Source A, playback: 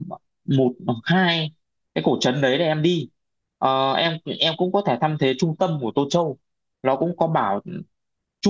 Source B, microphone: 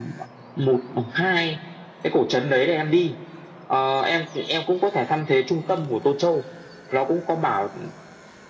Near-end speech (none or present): none